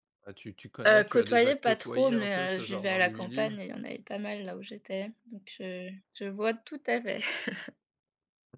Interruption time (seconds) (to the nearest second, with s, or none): 1 s